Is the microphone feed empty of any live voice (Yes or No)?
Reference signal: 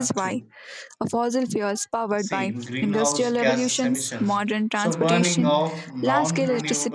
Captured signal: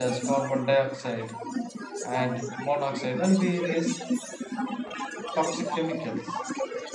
No